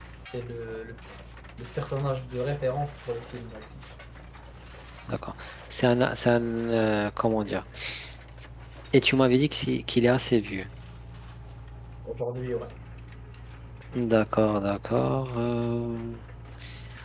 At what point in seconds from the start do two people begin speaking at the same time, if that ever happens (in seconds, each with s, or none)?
none